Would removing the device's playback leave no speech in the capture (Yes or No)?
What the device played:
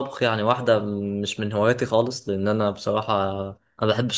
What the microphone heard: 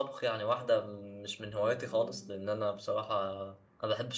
No